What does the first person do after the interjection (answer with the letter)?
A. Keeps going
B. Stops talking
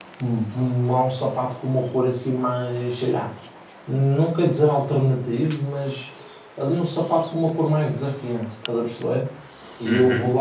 A